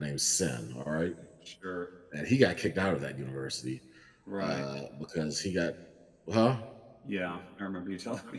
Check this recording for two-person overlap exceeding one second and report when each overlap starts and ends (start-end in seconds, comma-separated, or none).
none